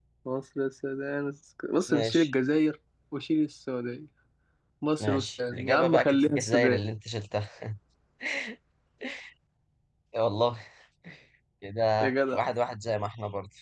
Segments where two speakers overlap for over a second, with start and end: 5.0-6.8

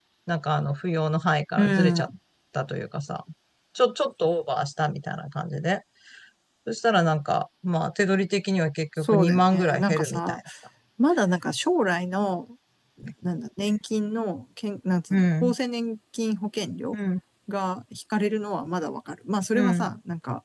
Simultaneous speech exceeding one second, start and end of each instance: 9.0-10.4

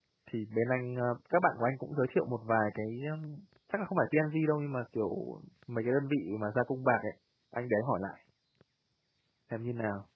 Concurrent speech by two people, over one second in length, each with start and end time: none

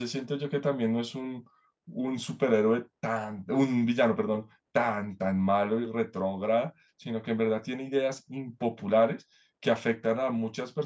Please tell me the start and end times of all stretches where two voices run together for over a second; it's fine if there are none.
none

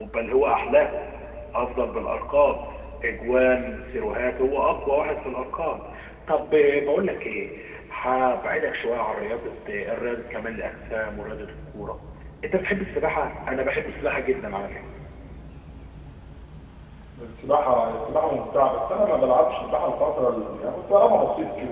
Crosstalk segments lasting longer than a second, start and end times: none

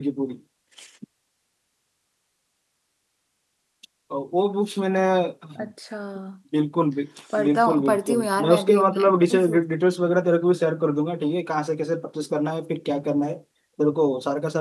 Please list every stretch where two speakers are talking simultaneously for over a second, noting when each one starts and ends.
7.4-9.6

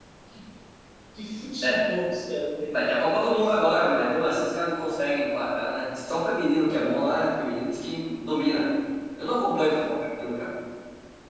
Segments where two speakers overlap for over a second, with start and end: 2.7-4.5

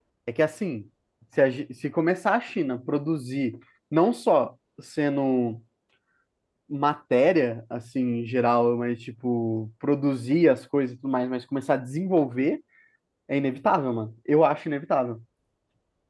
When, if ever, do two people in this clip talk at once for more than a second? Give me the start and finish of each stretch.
none

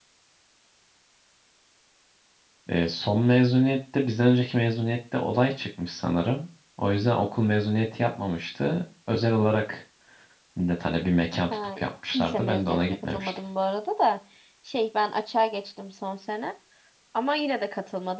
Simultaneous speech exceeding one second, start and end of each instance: 12.2-13.4

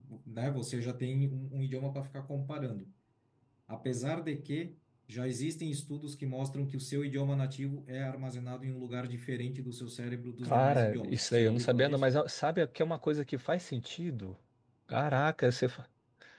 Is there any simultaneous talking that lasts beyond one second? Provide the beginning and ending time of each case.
10.4-12.1

